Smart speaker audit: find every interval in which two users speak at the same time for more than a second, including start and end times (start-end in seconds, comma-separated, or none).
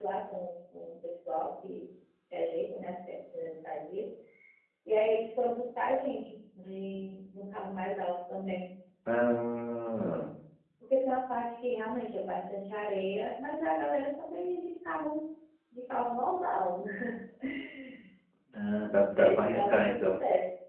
18.9-20.1